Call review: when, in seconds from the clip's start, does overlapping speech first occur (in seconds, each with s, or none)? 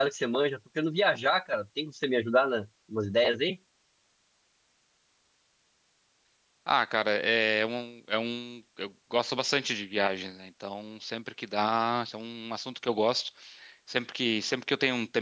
none